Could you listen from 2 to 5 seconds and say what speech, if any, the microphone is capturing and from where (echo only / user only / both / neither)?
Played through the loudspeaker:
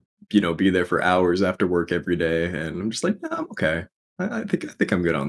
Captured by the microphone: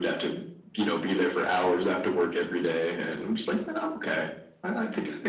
echo only